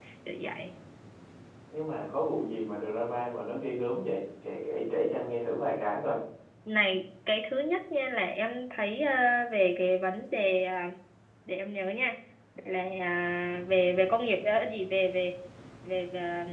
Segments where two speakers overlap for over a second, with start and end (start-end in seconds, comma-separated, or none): none